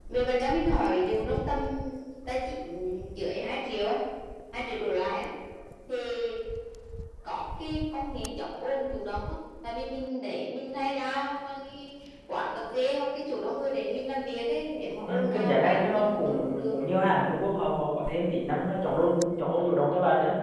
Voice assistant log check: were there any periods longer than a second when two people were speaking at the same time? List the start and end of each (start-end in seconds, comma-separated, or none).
15.1-16.8